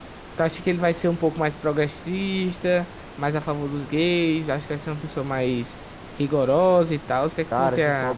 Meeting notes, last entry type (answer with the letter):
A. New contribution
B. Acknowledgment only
A